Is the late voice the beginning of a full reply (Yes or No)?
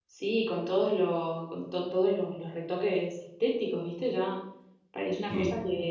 No